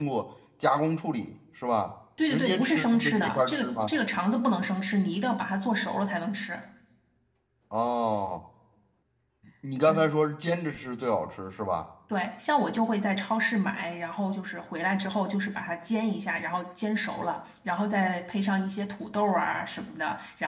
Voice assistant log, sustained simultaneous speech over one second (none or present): present